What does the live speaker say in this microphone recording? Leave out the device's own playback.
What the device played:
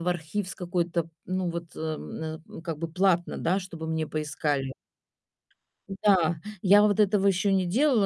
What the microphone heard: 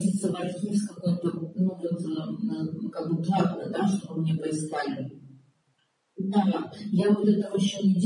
none

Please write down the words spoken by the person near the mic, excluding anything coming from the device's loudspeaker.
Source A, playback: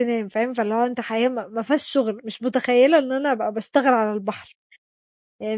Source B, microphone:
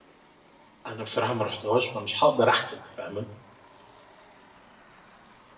أنا بصراحة ما رُحتهاش، فمش هاقدَر احكُم، فاهمة.

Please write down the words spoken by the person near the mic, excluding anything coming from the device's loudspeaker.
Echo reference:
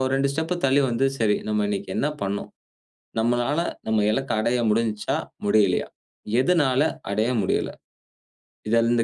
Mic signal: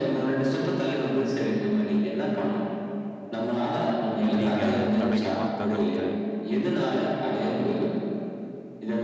நீங்க அத தடைகள்லாம் தகர்த்து,

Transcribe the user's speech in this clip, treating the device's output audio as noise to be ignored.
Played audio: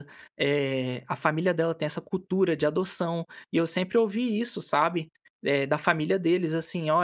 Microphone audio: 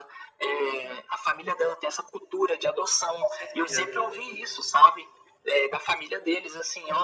Com certeza.

